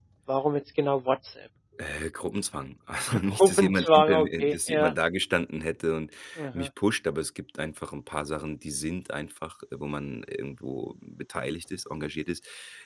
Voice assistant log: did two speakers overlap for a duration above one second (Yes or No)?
Yes